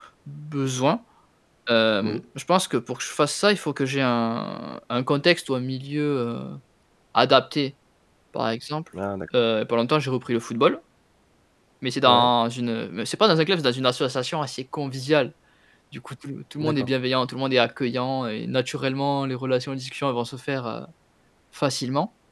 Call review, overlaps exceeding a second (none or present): none